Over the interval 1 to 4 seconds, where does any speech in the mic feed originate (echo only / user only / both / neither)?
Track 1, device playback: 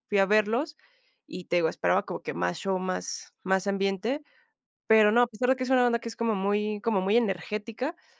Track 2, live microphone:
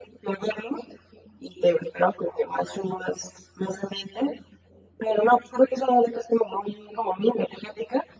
echo only